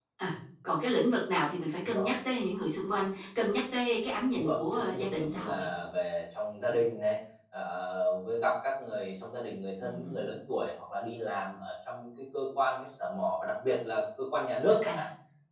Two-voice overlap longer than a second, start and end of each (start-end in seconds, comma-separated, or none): 4.4-5.7